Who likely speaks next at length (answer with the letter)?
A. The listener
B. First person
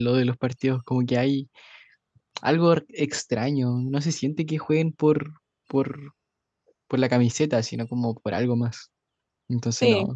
A